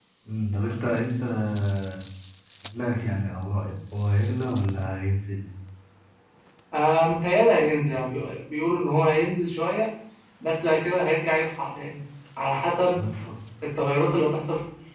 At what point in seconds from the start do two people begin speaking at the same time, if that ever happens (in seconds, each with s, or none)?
none